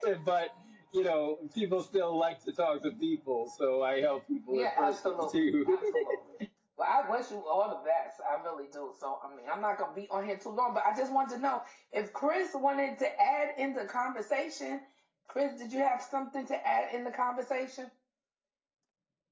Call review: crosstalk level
present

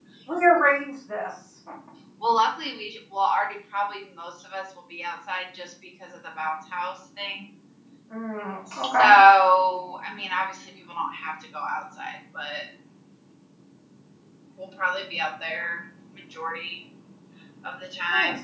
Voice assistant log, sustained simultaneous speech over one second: none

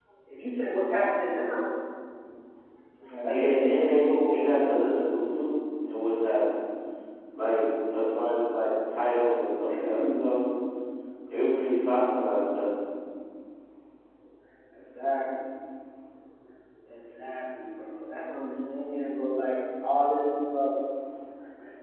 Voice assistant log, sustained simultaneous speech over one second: present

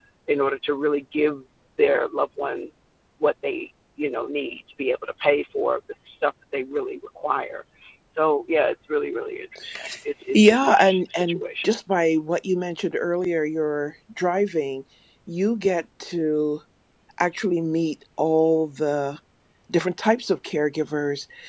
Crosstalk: present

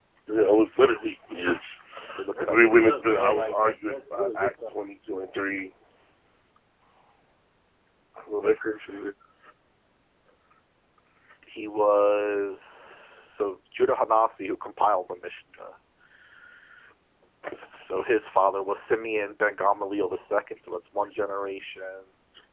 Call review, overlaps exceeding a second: present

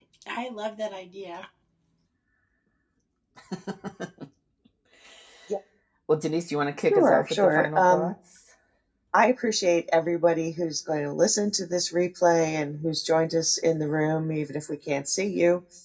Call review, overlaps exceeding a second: present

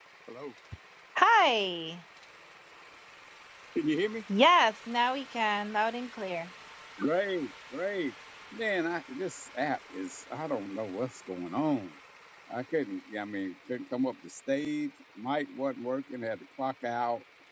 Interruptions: none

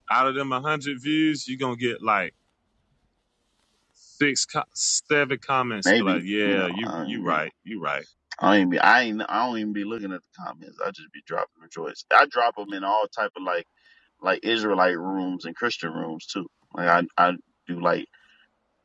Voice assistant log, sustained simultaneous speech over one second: present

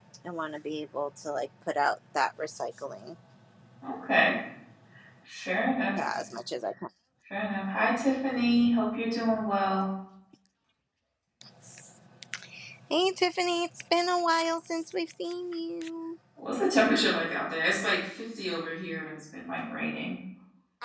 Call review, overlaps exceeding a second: none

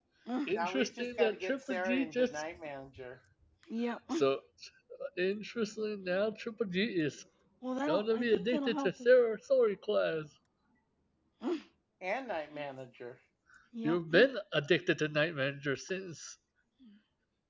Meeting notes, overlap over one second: present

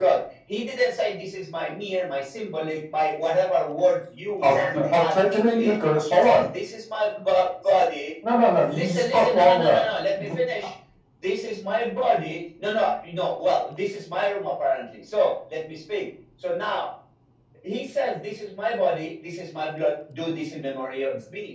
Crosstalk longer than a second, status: present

